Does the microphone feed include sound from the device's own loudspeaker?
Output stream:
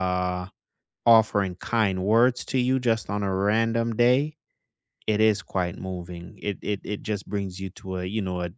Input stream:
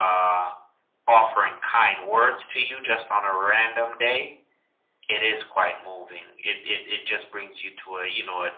Yes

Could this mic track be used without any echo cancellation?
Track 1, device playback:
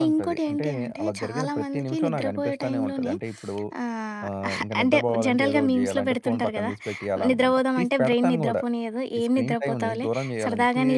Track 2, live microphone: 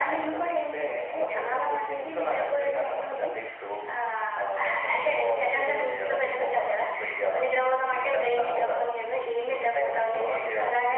No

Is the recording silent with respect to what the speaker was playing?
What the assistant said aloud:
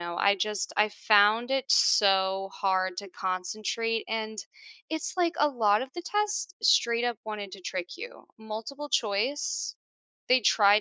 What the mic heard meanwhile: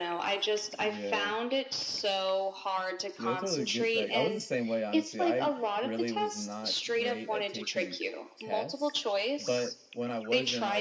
No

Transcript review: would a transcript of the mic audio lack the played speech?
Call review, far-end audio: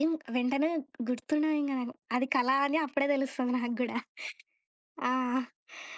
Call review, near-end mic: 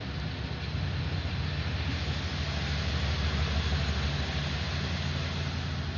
Yes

